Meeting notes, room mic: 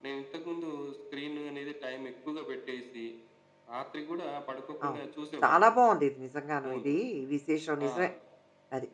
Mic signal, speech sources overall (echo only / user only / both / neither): both